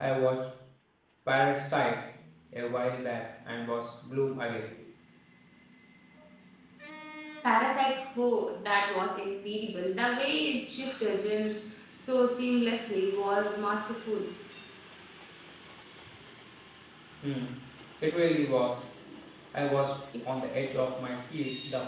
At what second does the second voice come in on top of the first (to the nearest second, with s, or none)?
none